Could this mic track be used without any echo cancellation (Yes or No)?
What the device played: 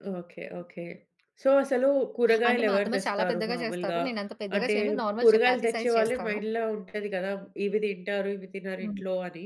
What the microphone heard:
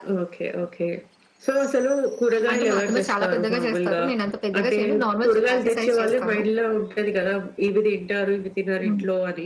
No